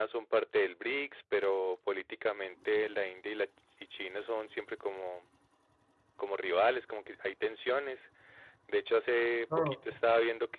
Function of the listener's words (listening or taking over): listening